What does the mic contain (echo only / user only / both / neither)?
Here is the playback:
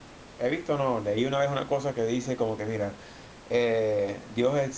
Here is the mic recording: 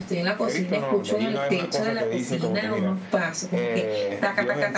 both